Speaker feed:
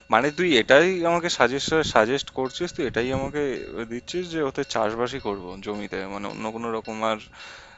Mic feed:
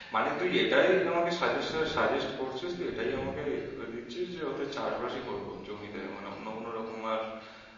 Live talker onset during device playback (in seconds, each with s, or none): none